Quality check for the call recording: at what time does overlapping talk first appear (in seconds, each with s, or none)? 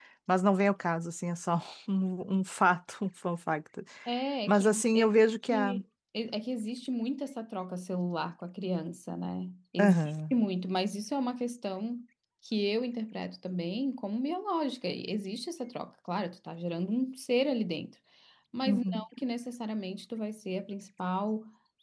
4.5 s